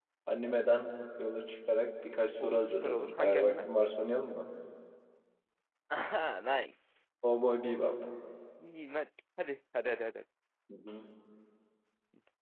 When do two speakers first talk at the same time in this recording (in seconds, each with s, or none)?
2.4 s